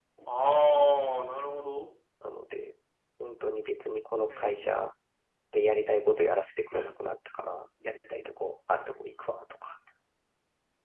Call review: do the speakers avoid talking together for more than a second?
Yes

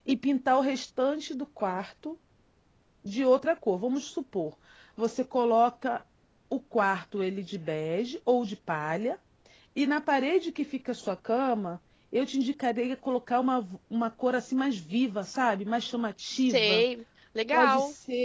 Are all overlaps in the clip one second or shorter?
Yes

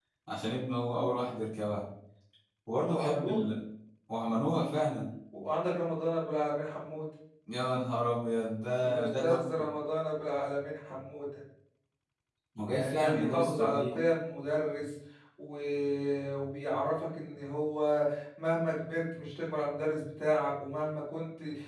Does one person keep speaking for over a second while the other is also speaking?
Yes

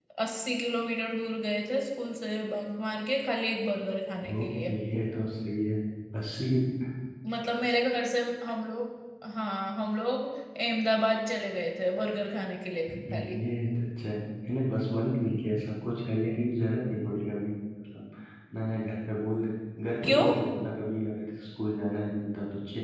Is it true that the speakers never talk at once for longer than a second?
Yes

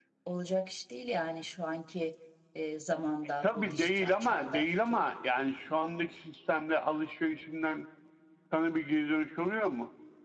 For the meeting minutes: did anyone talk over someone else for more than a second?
Yes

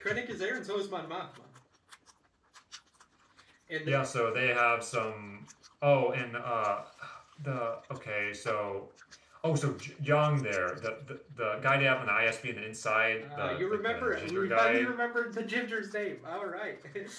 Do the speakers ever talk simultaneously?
Yes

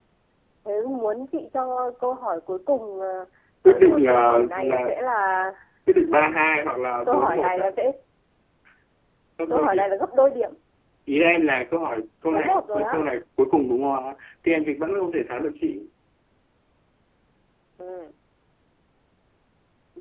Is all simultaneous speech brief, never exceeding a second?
No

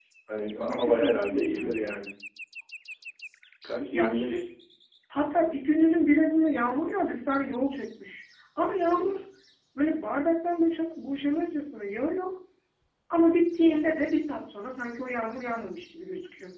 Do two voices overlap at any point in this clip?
Yes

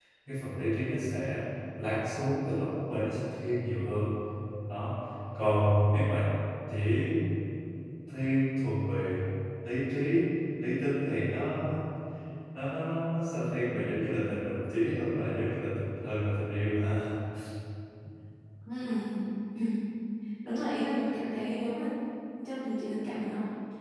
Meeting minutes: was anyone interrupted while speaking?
No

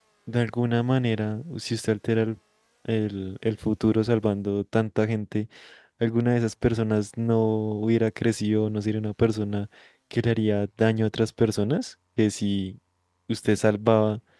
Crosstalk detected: No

